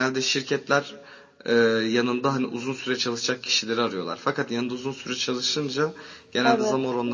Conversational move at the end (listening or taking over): listening